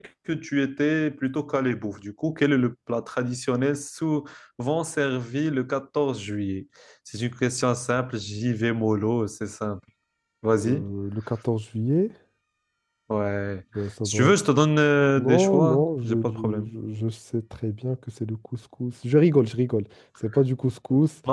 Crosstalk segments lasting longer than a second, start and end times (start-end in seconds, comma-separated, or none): 15.2-16.7